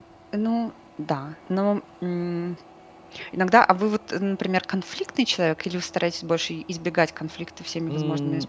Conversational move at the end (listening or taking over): taking over